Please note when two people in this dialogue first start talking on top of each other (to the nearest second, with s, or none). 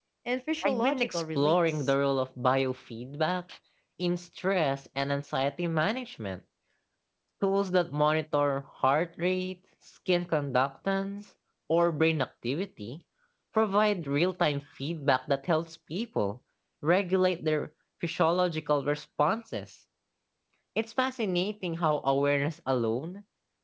1 s